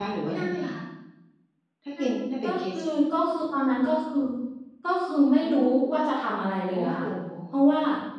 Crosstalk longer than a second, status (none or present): none